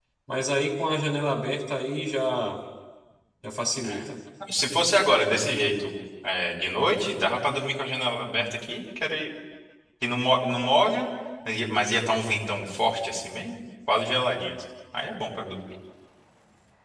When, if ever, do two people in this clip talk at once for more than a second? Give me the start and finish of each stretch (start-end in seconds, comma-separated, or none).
none